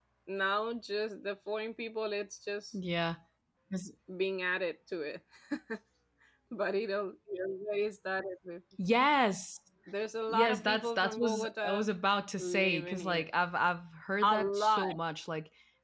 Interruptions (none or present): present